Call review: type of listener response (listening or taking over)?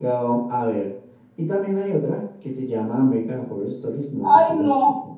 taking over